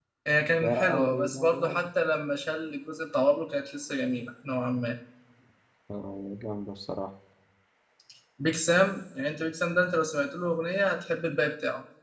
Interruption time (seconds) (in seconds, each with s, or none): 0.6 s